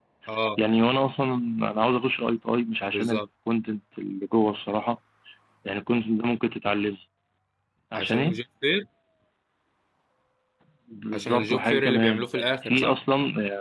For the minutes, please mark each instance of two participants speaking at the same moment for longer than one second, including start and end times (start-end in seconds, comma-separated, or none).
11.1-13.0